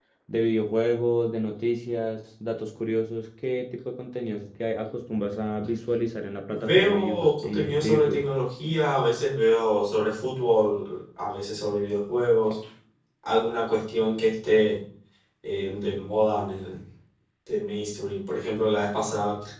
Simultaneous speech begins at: 6.5 s

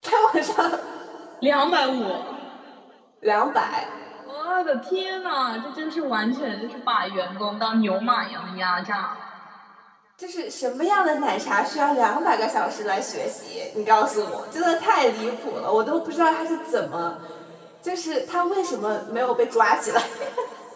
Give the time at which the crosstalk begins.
none

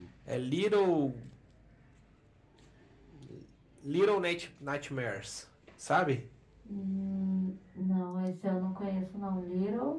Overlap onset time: none

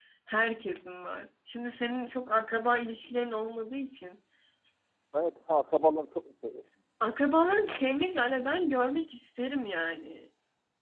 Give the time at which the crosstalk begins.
none

